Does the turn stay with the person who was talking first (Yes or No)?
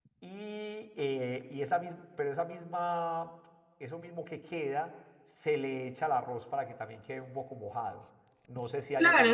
No